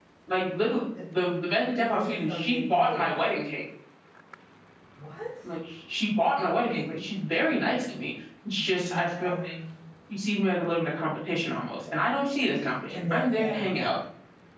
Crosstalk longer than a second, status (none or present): present